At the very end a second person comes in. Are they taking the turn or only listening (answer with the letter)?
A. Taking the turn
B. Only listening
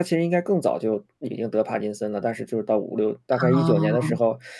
B